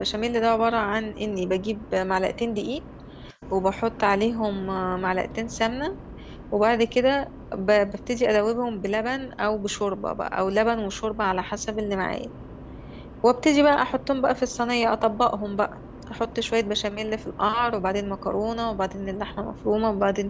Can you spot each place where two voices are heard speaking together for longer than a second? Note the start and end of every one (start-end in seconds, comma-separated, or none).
none